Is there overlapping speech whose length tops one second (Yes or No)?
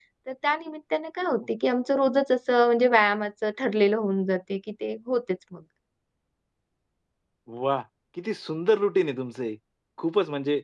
No